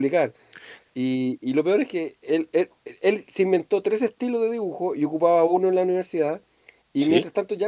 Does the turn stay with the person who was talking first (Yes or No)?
Yes